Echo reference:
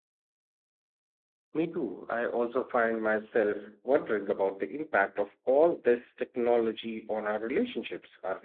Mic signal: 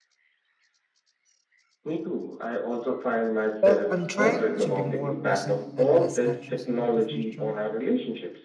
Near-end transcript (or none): Well, I'm trying to be more present and less anxious about the future.